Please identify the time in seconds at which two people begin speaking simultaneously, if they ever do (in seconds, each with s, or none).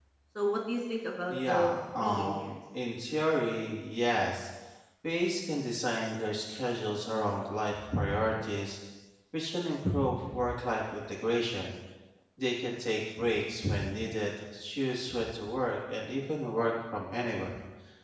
1.3 s